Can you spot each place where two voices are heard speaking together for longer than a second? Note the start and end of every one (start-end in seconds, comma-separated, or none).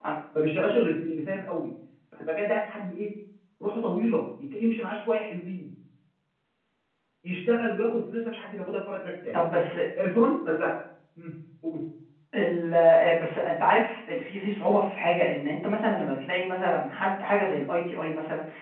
none